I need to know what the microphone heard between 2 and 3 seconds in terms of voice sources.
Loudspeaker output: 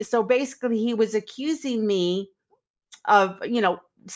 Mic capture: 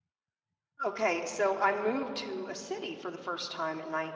user only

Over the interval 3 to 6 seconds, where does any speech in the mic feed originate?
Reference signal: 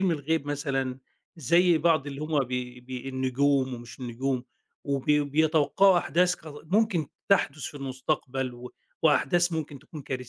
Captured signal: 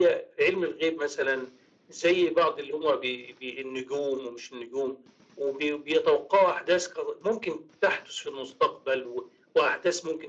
echo only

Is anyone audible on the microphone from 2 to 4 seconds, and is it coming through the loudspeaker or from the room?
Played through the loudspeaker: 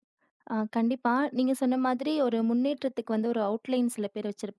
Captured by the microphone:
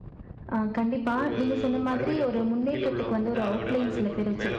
both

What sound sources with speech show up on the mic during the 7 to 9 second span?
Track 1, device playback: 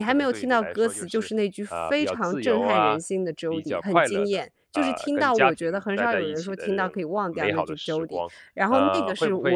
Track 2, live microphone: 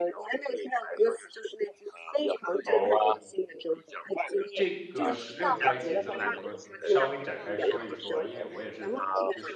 both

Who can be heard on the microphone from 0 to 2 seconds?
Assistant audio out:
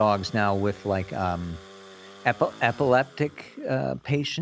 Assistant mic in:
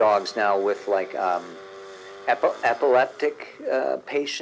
echo only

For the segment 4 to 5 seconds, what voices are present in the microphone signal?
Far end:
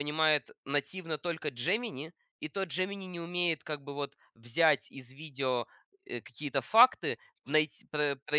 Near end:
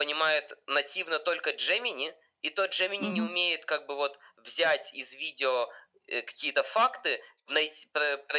echo only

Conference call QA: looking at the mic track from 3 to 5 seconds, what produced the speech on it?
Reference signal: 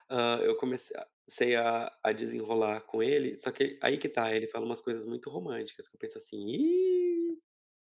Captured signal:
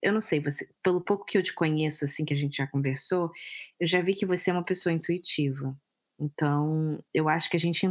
user only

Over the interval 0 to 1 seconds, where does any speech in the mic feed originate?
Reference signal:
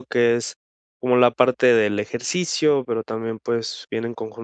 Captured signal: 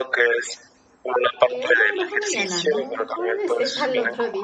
echo only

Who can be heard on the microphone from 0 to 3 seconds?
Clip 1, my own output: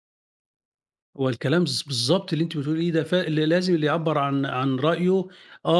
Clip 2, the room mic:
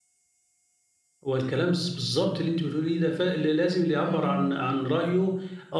echo only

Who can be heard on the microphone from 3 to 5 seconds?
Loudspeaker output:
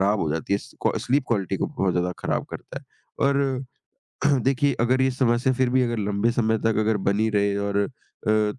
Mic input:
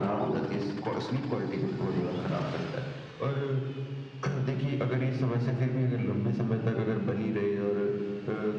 echo only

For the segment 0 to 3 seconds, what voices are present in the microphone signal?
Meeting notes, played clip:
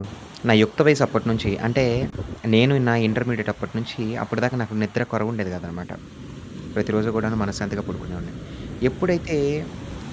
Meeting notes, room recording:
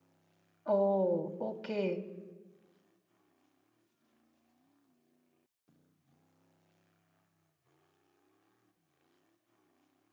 user only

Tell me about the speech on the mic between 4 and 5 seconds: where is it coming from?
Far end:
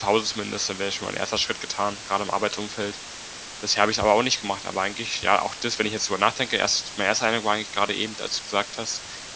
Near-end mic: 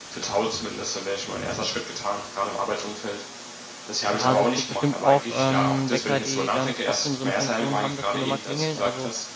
both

